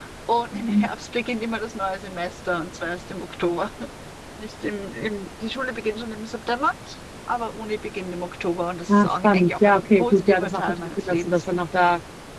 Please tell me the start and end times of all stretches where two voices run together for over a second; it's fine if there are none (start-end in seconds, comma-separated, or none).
8.9-11.4